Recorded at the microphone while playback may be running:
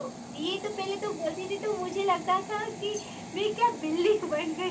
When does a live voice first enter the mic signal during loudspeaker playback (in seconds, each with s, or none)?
none